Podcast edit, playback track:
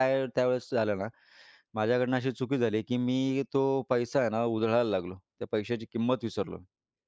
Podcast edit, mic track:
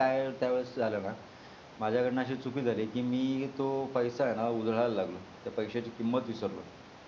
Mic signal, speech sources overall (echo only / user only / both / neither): echo only